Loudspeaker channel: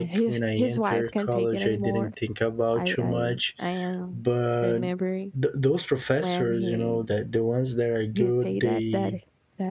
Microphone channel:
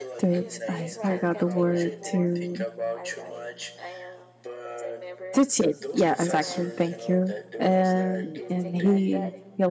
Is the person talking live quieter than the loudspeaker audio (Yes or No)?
No